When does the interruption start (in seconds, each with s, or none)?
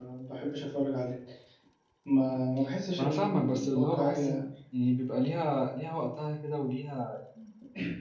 3.0 s